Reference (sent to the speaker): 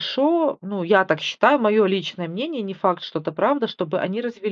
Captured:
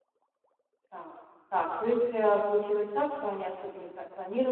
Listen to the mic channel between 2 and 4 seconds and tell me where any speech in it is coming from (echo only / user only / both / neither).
user only